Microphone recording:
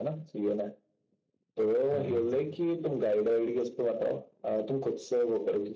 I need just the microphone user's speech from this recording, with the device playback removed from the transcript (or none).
हाँ